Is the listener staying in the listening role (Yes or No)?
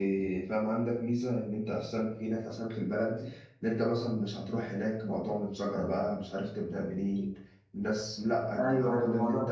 No